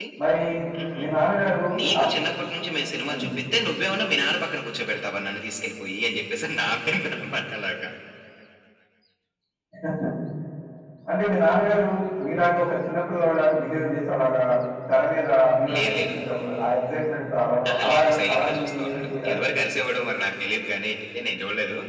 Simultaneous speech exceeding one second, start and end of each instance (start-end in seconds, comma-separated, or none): 17.7-19.3